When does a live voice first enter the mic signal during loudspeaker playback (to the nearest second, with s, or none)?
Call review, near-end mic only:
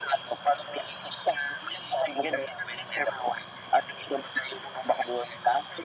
none